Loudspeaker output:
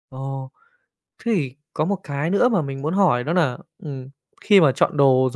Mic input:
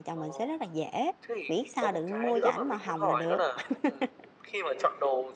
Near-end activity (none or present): present